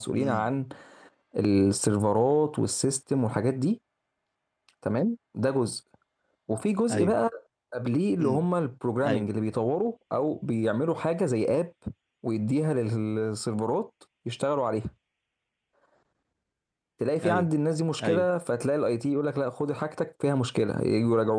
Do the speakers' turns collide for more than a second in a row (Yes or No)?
No